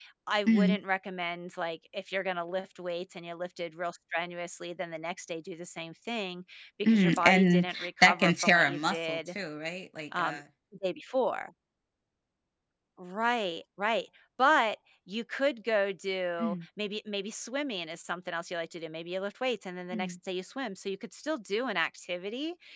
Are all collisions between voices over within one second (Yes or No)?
No